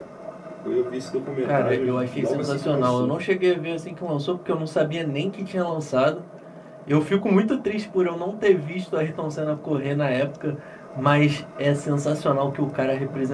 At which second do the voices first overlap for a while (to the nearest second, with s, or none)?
1 s